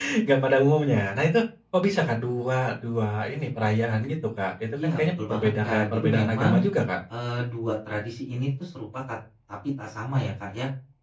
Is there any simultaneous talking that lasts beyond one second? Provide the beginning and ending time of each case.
4.8-6.6

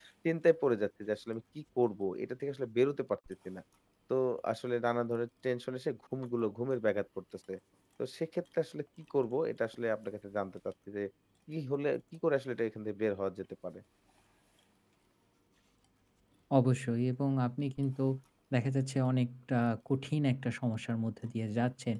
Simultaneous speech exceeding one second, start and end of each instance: none

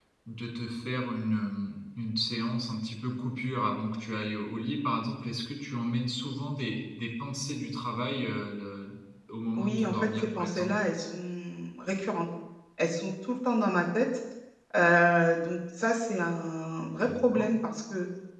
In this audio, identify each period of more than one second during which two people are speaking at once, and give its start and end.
9.6-10.8

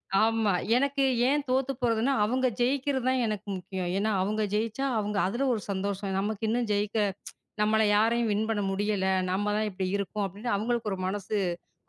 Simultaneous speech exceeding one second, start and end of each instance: none

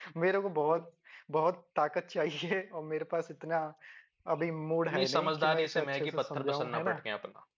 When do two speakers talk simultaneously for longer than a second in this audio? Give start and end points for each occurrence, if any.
4.9-7.0

